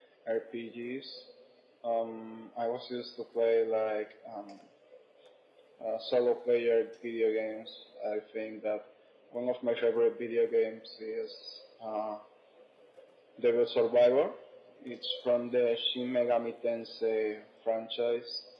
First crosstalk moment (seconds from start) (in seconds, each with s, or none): none